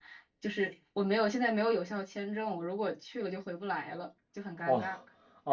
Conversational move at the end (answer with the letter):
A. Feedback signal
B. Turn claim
B